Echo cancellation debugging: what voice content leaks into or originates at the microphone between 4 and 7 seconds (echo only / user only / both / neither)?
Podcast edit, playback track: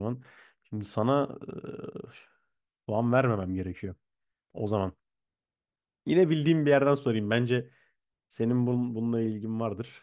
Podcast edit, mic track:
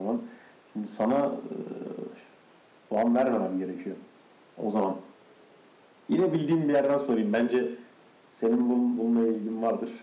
echo only